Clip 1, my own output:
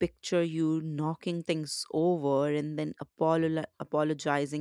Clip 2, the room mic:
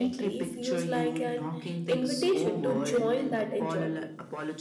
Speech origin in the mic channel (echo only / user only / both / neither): both